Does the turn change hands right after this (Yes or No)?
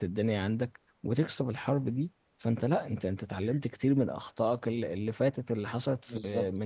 Yes